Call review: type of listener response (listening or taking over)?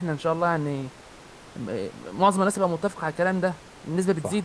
taking over